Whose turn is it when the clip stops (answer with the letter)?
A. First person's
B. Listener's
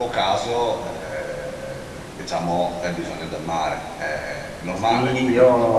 B